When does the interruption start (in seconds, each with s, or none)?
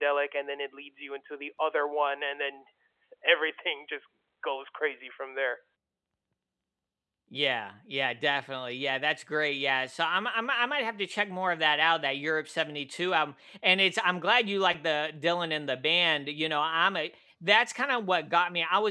none